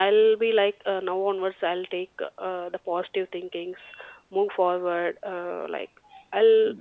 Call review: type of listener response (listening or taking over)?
listening